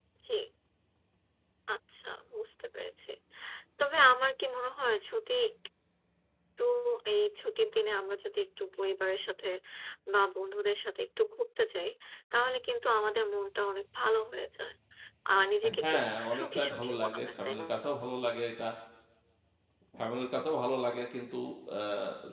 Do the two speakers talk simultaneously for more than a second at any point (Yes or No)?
Yes